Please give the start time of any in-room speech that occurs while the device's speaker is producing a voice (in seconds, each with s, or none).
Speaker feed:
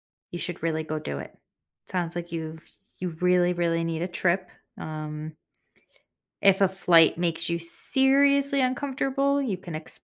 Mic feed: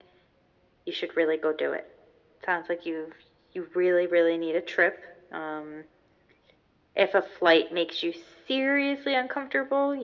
none